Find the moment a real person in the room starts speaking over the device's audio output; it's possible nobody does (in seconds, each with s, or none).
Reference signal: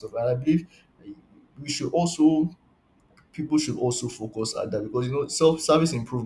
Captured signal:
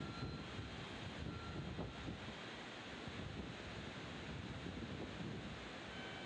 none